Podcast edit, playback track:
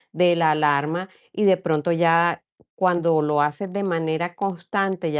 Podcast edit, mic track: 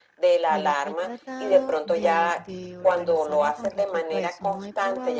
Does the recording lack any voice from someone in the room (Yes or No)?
No